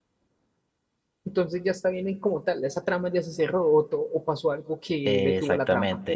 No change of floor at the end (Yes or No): No